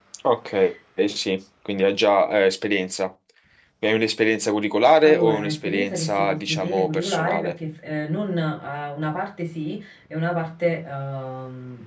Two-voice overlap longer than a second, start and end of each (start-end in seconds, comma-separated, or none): 5.0-7.5